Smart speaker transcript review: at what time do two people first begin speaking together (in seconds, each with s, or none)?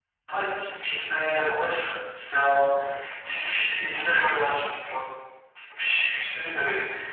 none